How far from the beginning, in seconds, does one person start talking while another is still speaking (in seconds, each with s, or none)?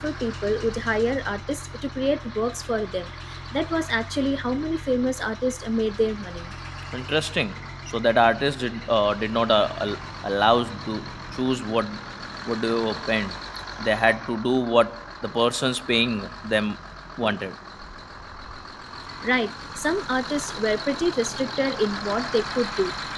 none